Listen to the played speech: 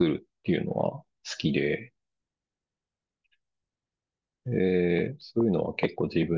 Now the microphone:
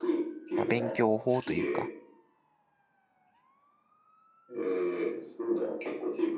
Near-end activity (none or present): present